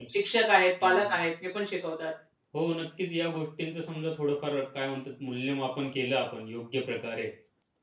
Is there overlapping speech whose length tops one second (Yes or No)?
No